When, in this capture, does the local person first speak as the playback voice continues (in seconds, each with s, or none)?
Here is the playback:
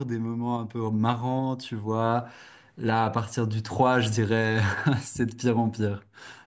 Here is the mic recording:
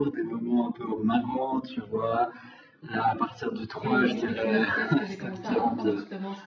3.8 s